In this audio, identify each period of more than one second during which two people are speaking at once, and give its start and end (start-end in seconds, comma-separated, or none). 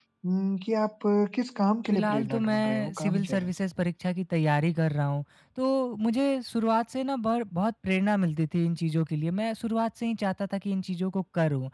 1.9-3.5